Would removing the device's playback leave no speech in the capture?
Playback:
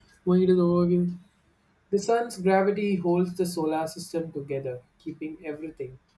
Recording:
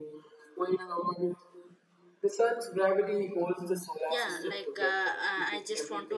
No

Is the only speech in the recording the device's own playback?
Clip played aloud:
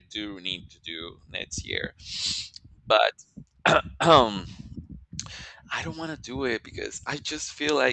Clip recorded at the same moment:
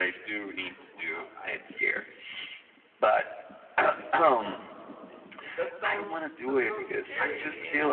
No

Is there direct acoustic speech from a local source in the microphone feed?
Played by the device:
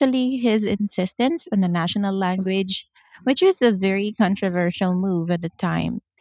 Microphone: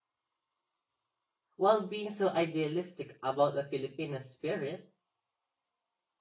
Yes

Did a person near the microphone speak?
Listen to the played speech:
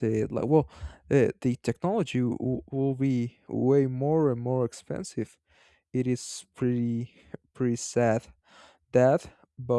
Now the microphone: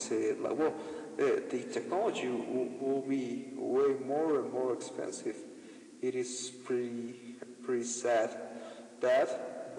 No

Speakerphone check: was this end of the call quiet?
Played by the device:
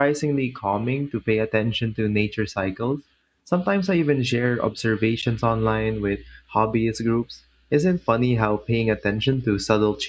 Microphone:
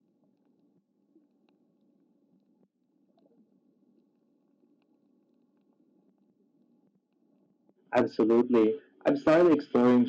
No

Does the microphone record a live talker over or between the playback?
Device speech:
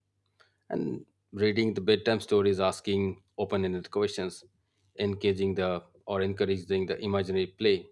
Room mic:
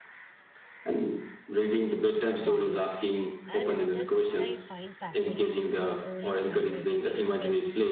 Yes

